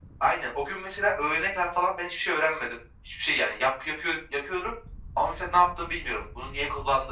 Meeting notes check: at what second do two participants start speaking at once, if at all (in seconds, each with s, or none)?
none